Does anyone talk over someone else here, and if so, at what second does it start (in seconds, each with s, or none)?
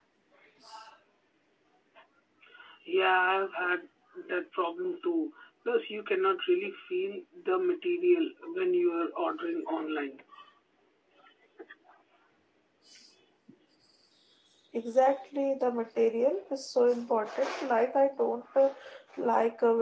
none